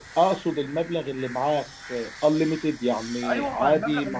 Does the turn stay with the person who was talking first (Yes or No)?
No